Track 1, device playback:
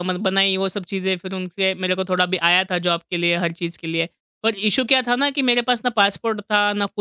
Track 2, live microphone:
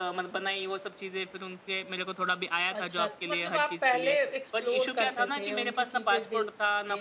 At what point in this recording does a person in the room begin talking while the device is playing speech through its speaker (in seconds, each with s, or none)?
2.7 s